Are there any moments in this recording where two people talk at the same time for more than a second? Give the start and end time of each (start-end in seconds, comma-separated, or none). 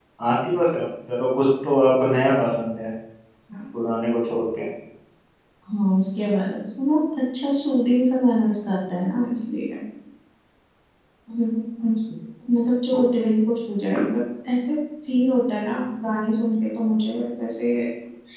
none